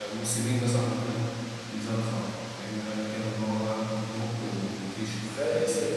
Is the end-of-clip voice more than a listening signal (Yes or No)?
Yes